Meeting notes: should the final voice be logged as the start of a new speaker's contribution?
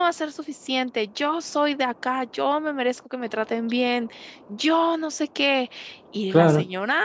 No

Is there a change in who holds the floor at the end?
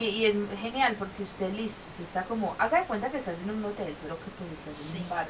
No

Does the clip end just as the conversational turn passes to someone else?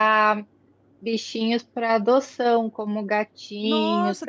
Yes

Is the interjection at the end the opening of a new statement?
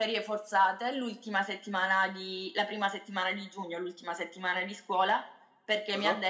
No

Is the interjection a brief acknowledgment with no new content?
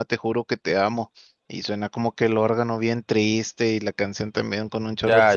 No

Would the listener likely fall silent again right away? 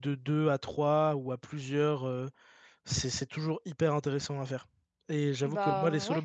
Yes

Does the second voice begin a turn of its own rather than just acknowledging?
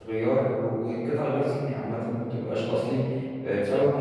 No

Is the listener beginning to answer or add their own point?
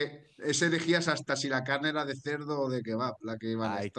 Yes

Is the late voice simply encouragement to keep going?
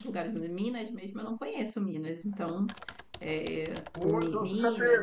No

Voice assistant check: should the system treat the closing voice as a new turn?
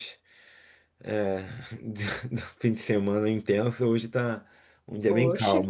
Yes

